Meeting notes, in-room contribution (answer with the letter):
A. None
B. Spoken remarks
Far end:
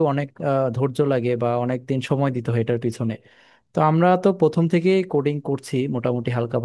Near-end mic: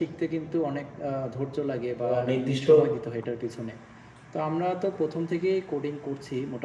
B